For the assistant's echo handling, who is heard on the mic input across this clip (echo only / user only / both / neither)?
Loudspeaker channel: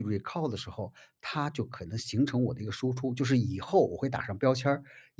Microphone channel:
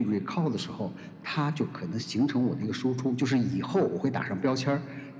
echo only